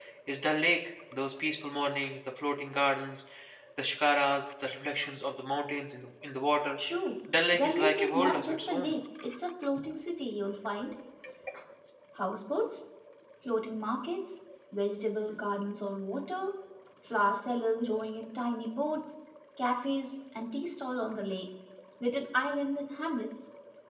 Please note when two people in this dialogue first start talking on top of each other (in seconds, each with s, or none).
7.5 s